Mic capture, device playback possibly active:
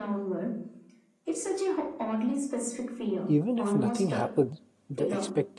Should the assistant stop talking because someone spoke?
Yes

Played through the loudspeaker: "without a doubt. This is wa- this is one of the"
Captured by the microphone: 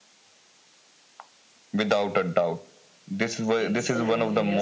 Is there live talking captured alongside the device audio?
Yes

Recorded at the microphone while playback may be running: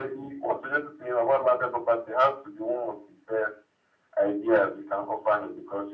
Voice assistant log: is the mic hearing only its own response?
Yes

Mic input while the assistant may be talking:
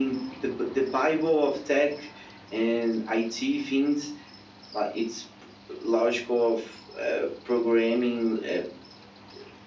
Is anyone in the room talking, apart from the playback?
No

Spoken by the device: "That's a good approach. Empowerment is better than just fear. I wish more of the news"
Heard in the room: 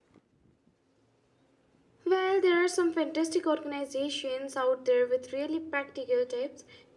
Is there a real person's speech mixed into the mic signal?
Yes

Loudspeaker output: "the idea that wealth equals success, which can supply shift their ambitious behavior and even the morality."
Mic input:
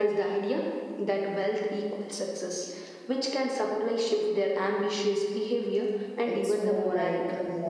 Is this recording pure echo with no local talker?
No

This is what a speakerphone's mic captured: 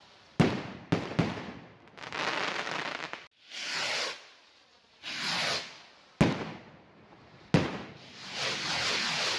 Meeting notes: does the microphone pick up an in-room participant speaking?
No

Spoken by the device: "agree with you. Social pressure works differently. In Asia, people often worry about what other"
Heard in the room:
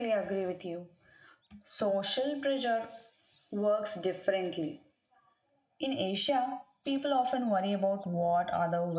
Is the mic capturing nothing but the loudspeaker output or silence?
Yes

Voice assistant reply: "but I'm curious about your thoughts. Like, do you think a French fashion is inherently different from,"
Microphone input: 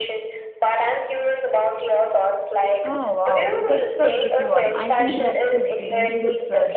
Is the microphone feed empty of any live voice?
No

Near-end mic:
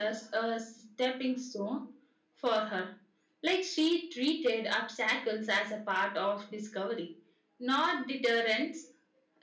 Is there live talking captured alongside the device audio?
No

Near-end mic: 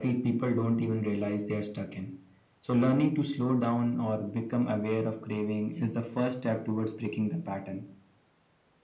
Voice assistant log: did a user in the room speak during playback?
No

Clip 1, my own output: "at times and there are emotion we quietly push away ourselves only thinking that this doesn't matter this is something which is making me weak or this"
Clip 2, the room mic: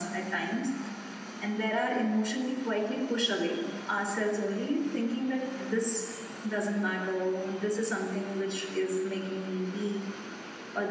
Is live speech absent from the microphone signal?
Yes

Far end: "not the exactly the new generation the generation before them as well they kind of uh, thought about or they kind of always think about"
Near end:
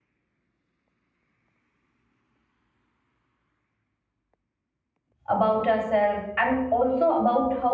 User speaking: Yes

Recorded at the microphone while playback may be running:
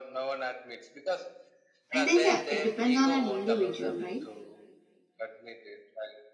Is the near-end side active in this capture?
Yes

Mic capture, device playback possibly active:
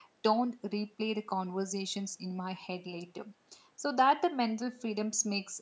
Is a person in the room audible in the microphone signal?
Yes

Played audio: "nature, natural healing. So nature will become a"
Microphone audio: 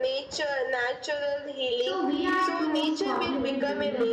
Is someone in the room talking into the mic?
Yes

